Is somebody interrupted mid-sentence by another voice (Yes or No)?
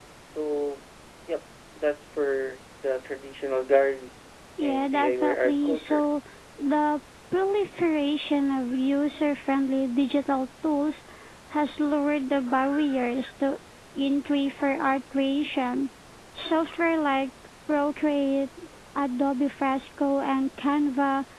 Yes